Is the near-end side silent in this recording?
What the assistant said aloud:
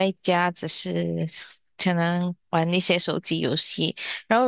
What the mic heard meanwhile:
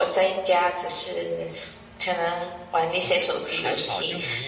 No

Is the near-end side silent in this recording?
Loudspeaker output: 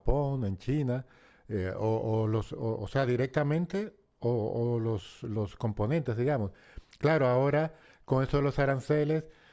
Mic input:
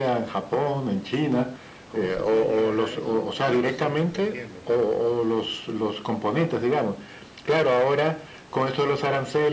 No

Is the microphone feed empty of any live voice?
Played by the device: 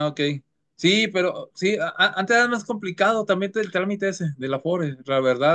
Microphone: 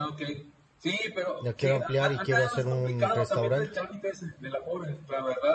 No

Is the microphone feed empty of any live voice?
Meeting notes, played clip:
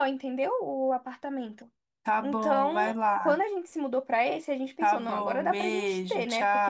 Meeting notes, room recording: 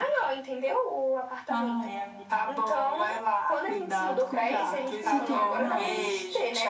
No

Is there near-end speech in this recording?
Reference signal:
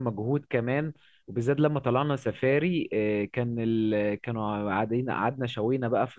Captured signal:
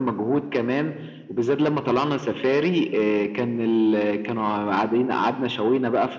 No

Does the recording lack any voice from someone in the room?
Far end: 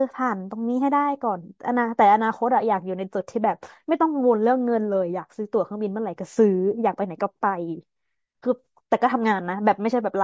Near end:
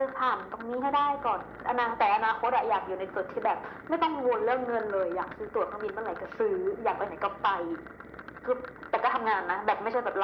Yes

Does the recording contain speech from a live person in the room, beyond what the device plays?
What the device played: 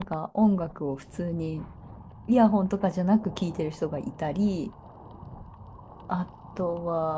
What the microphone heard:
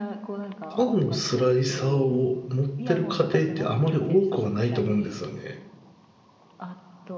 Yes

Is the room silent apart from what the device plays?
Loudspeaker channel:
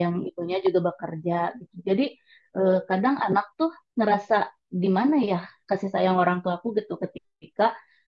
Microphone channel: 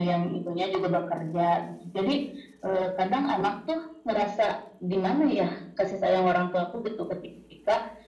Yes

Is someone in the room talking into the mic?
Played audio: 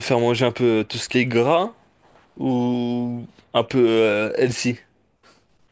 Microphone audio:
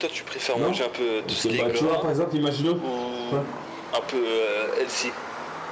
Yes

